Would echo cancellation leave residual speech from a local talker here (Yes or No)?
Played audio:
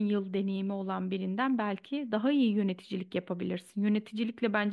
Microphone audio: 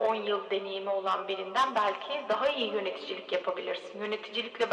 No